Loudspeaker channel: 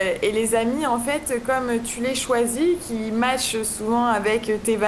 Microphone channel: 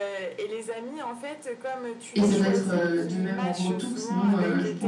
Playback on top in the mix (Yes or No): No